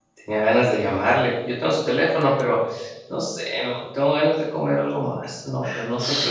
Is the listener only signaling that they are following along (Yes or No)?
No